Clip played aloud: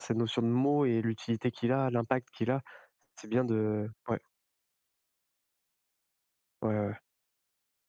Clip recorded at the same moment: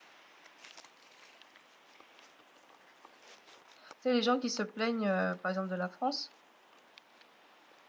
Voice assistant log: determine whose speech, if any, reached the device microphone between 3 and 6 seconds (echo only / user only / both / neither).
user only